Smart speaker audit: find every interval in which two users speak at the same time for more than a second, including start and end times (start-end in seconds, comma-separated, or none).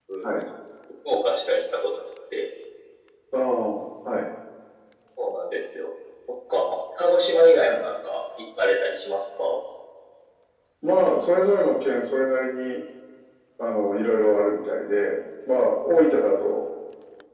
none